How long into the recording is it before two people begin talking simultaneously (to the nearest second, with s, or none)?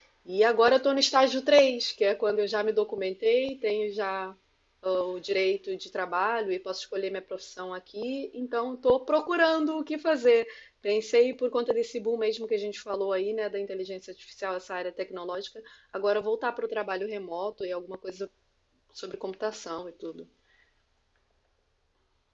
none